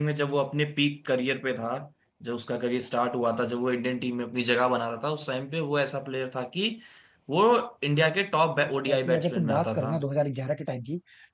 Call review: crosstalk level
present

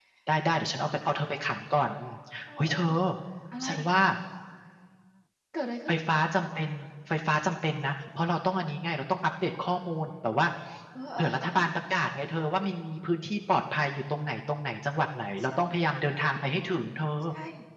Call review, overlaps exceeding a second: none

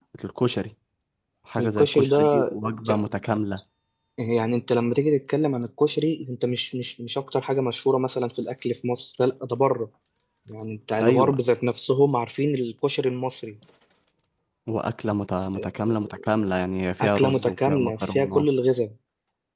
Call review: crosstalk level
present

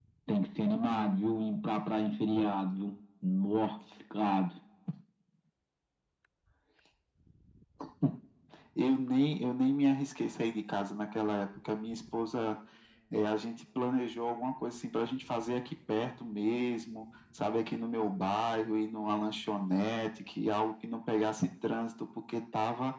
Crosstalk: none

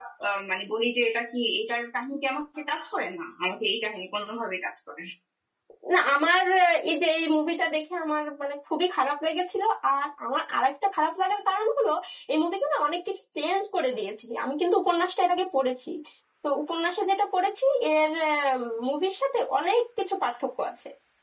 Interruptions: none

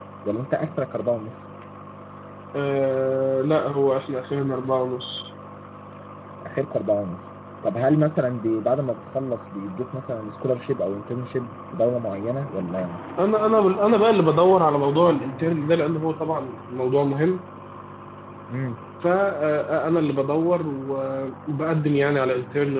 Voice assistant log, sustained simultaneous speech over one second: none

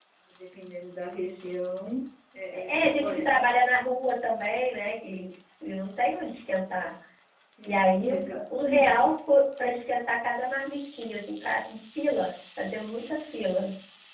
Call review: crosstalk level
present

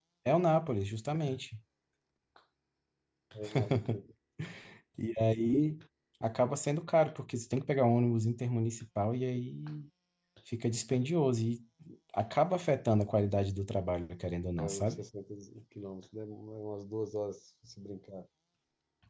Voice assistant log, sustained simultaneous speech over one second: none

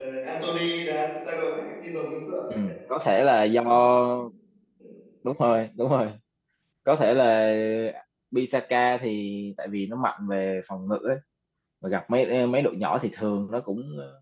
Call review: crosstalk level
none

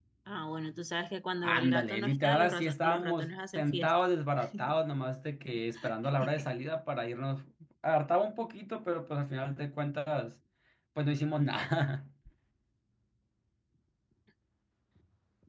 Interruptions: present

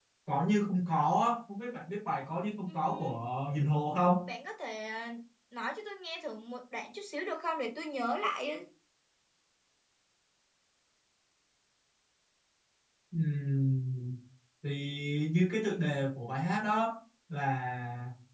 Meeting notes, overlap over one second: none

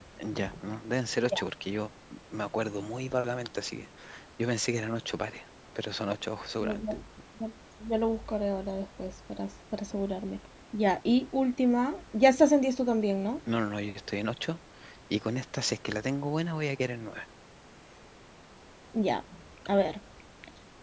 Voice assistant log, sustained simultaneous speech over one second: none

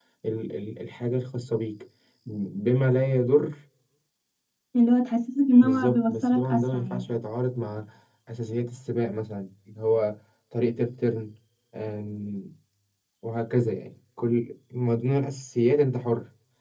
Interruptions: present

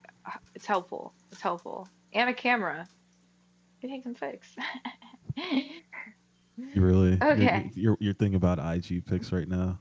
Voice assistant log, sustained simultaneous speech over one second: none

